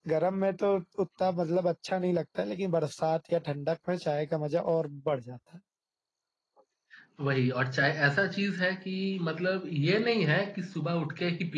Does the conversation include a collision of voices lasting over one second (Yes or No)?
No